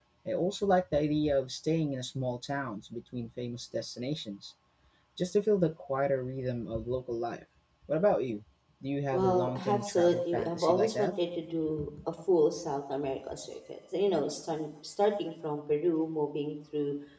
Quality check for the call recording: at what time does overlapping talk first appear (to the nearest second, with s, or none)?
9 s